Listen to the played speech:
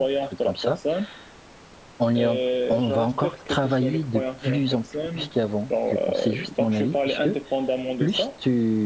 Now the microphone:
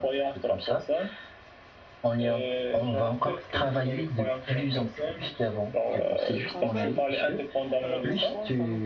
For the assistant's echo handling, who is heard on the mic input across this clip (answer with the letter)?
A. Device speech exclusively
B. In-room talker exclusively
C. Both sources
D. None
C